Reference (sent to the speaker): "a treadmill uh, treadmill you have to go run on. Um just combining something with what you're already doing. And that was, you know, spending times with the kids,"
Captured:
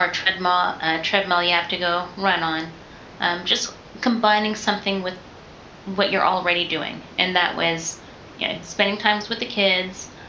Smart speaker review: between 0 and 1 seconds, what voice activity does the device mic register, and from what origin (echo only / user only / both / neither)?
echo only